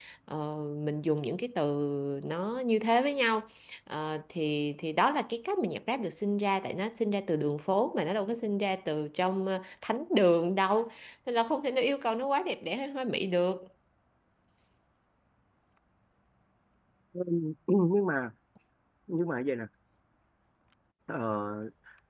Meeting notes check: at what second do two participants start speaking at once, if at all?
none

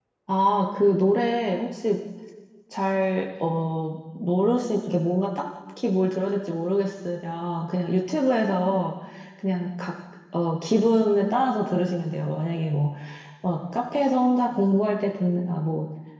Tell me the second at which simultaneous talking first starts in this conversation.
none

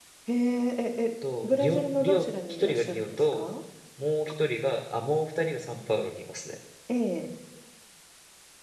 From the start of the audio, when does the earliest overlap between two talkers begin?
1 s

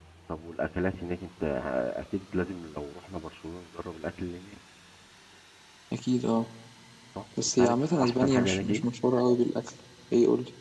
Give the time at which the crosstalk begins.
8 s

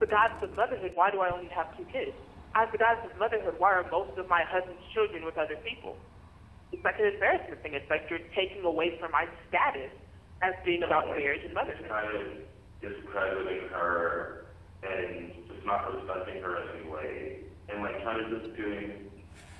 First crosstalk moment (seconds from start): 11 s

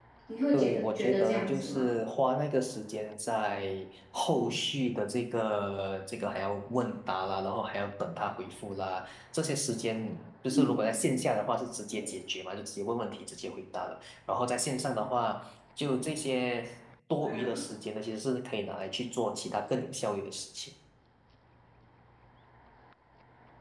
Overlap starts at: 1 s

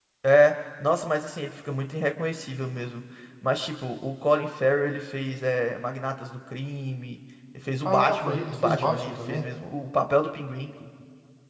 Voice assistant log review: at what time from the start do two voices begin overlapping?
8 s

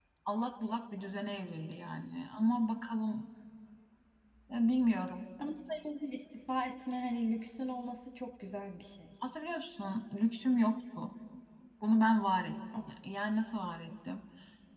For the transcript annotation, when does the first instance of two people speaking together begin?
none

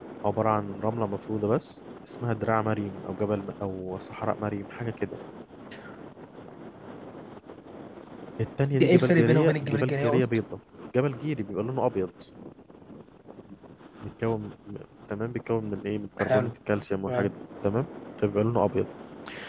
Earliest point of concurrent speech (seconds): 9 s

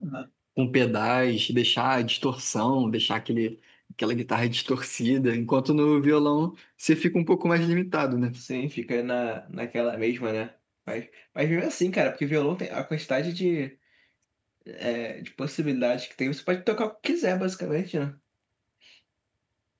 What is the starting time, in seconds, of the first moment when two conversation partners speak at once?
none

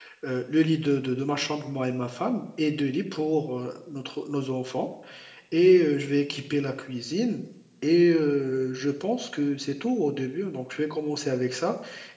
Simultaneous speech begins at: none

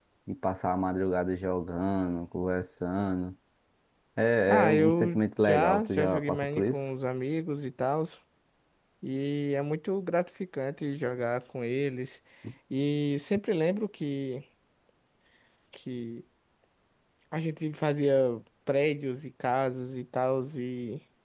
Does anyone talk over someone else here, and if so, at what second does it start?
4 s

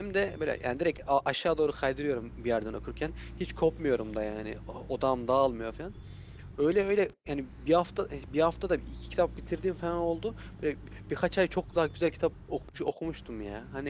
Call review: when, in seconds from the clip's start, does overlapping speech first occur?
none

